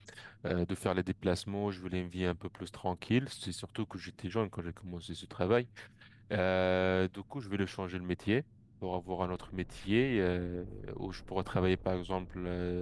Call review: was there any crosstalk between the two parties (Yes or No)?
No